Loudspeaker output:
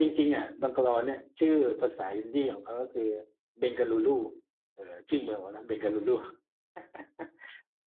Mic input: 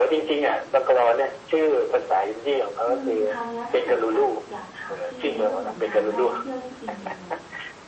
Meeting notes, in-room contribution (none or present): present